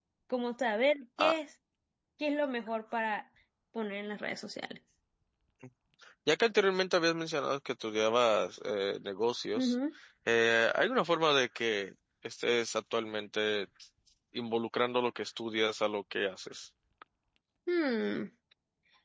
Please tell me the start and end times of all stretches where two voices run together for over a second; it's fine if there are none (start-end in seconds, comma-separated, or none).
none